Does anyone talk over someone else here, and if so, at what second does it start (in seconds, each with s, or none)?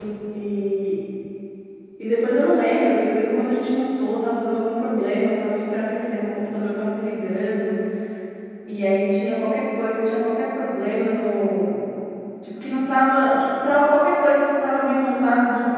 none